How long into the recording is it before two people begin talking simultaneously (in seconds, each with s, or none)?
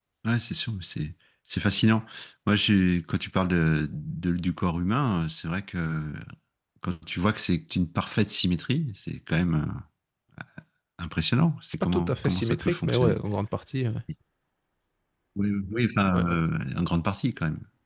11.7 s